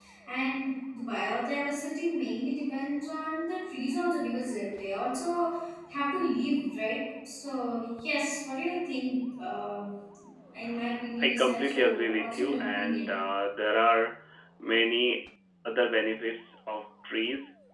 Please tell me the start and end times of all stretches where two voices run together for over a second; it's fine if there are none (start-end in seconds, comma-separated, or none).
11.2-13.0